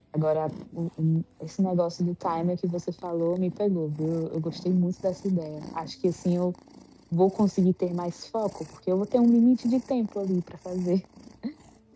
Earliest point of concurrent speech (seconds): none

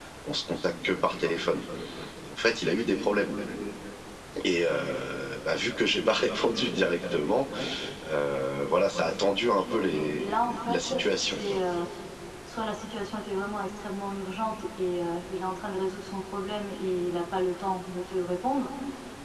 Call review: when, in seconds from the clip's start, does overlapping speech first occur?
9.9 s

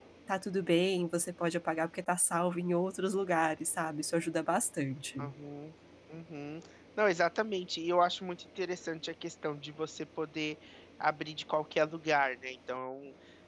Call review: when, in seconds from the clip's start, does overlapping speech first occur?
none

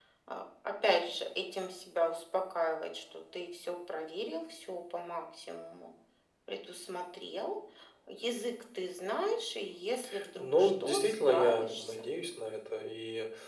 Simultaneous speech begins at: 10.1 s

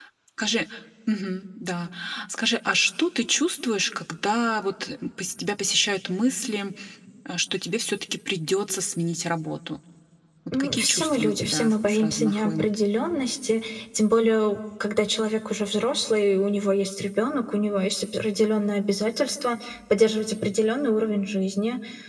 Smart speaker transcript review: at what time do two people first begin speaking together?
10.5 s

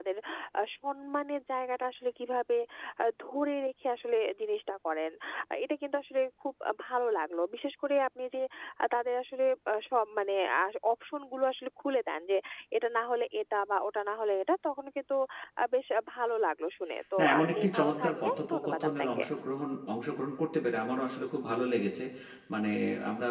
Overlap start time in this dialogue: 17.2 s

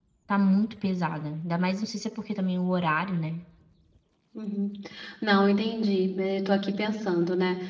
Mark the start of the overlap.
none

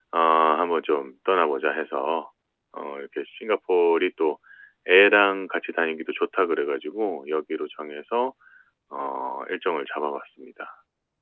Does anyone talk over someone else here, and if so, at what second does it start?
none

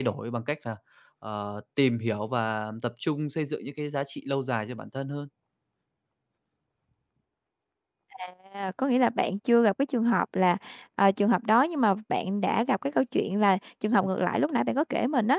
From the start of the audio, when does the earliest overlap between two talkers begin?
none

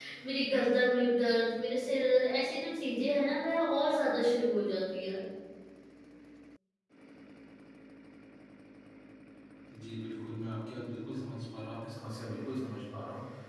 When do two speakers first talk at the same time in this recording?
none

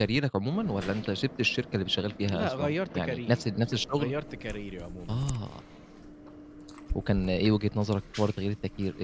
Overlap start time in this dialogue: 2.2 s

